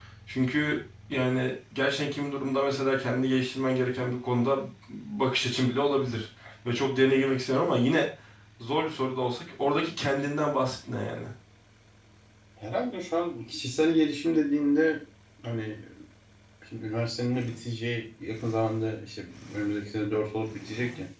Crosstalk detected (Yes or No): No